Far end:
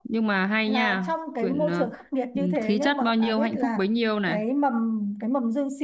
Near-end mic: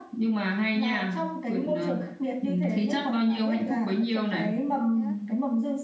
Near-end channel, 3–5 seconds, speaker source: both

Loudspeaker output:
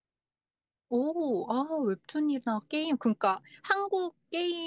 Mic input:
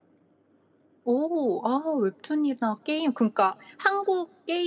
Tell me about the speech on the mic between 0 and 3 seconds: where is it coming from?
echo only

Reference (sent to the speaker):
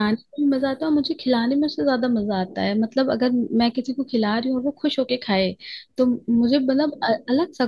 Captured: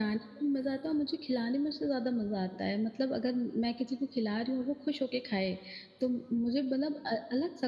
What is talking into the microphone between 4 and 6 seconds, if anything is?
echo only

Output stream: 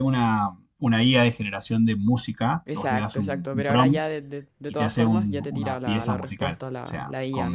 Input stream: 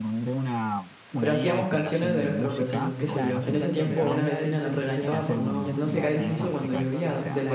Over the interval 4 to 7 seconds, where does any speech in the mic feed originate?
both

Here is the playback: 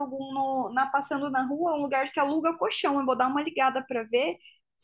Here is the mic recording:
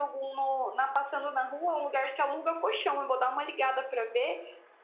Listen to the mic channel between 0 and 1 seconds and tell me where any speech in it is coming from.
echo only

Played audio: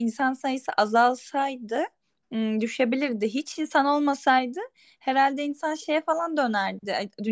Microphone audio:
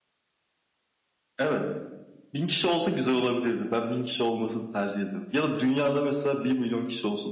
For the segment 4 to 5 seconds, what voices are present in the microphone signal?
user only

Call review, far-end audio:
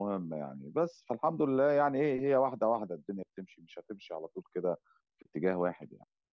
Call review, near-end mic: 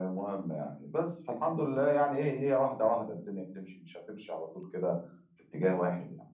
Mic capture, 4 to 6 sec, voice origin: echo only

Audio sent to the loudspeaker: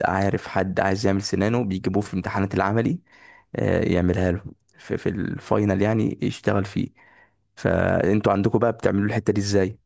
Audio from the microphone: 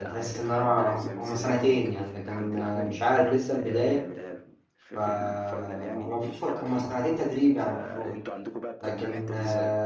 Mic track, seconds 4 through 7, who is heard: both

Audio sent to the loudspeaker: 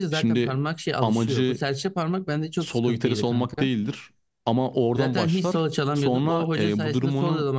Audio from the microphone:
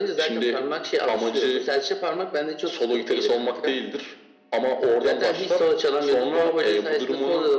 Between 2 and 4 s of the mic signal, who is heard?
echo only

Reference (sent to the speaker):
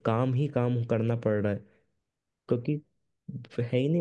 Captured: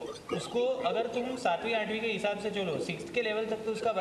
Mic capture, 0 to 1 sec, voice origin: both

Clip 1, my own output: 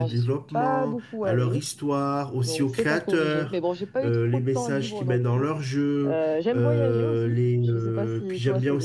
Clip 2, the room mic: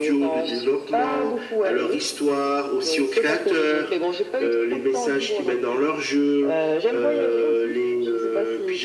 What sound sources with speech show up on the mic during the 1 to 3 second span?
echo only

